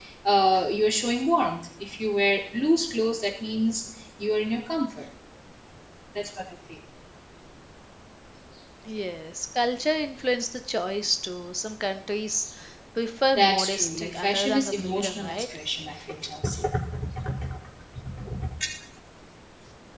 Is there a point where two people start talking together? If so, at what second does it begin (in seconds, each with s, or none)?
13.3 s